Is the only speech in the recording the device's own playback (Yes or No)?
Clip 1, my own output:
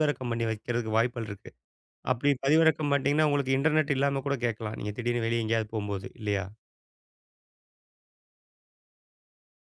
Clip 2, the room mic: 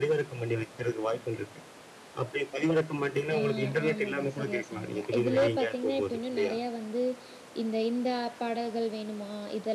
No